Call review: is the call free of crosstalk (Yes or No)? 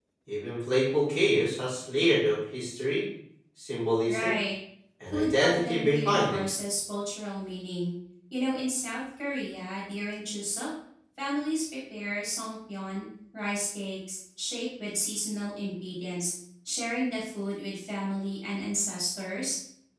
No